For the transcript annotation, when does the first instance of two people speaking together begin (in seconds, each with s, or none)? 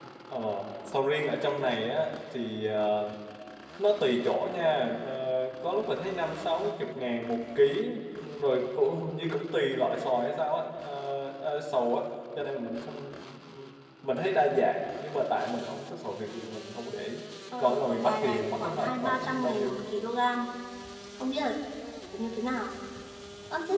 17.6 s